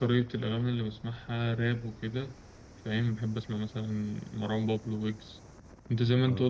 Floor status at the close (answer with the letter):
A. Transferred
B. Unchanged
B